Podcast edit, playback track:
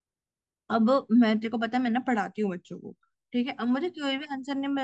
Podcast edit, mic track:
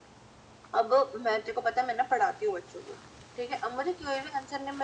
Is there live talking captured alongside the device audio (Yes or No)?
No